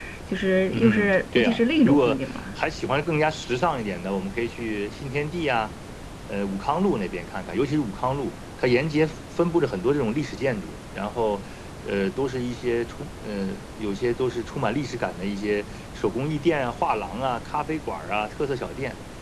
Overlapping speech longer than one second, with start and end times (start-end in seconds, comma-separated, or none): 0.7-2.4